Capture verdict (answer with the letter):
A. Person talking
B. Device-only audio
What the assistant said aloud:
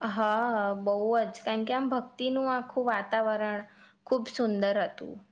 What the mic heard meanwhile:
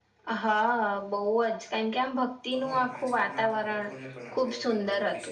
A